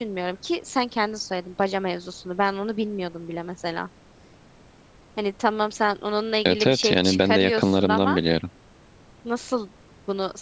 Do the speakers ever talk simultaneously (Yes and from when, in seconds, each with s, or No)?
Yes, from 6.4 s